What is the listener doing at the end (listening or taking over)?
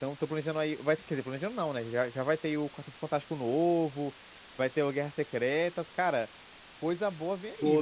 taking over